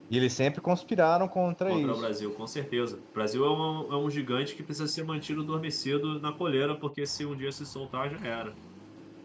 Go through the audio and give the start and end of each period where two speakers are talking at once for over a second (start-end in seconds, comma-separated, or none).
none